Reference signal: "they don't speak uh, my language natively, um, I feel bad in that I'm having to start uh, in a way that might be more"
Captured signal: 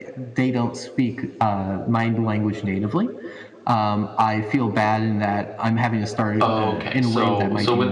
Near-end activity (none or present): present